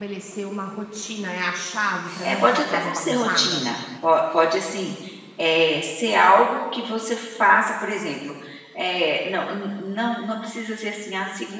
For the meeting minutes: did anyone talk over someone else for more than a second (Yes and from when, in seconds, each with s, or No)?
Yes, from 2.2 s